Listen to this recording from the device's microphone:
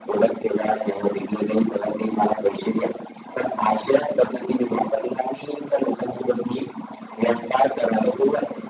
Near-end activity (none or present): none